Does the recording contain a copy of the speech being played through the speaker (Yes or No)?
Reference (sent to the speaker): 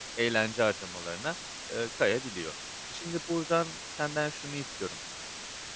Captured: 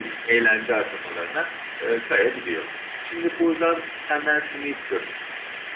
Yes